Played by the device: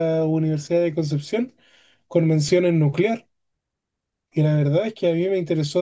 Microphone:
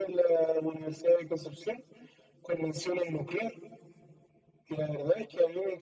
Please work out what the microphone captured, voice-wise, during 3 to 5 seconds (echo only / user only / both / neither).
echo only